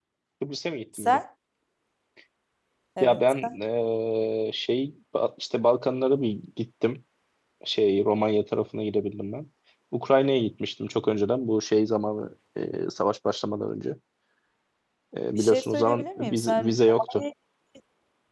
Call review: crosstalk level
present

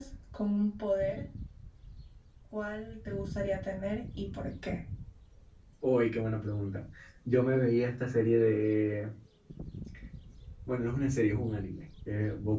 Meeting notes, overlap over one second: none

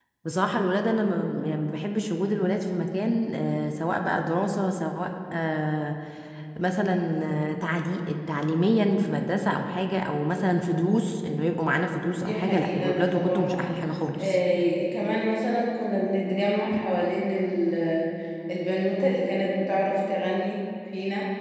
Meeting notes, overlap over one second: present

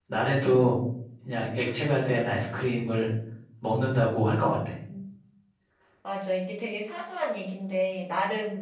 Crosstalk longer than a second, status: none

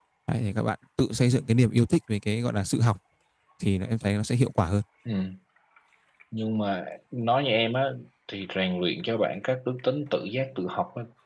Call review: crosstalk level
none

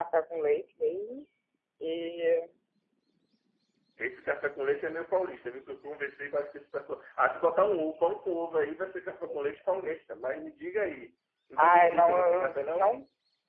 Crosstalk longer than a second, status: present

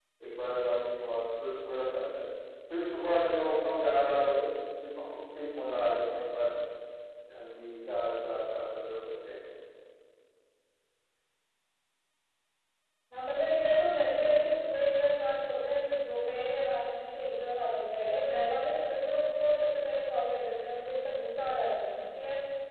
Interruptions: none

